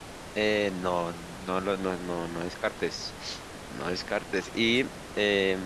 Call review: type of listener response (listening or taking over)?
listening